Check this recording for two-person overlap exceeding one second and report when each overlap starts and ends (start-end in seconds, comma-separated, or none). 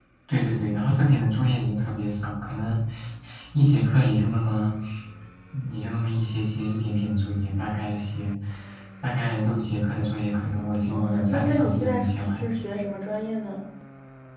10.8-12.4